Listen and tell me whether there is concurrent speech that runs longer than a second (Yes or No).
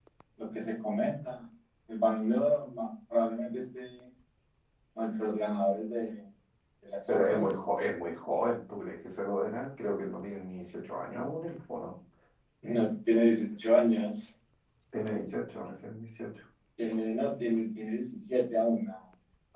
No